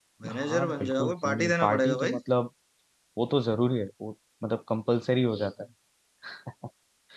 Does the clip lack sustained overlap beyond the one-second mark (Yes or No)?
No